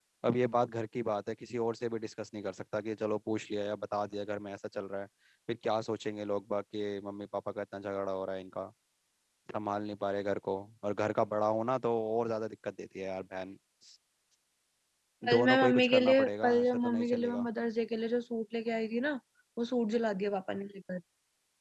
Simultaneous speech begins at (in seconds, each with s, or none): 15.3 s